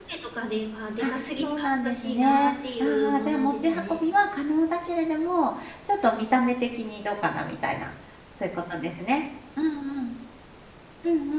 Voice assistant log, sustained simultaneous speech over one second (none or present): present